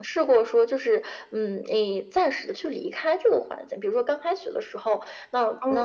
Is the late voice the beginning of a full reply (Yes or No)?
No